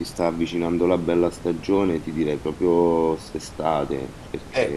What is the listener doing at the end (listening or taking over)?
taking over